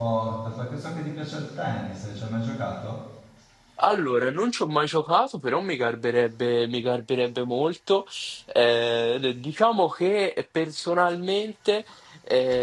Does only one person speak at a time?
Yes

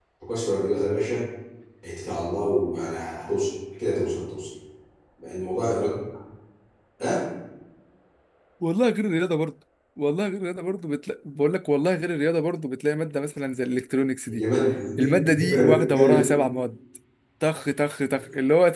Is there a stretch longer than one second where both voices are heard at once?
Yes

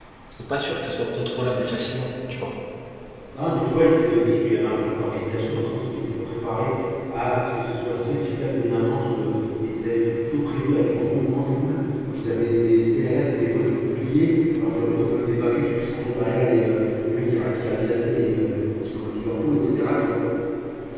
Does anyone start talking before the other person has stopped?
No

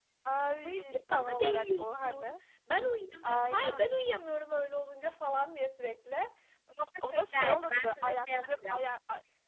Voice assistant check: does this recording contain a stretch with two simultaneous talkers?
Yes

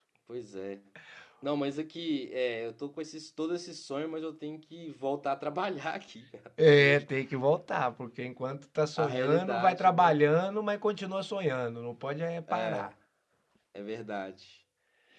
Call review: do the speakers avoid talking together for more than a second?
No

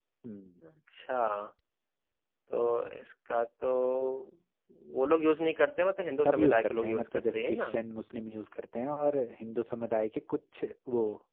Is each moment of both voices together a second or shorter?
No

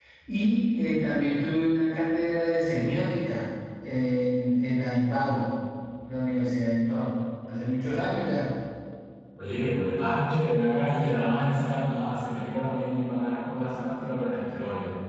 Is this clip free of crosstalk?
Yes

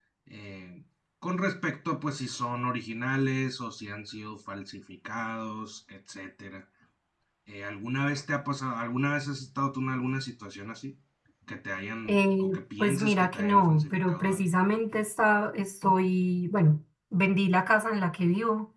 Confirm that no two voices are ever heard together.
No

